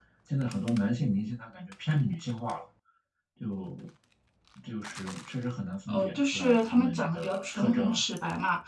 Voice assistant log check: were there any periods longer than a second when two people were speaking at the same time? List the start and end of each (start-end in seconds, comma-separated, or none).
5.9-8.0